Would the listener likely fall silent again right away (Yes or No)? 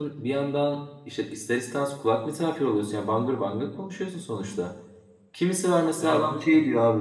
Yes